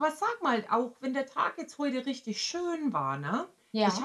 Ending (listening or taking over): listening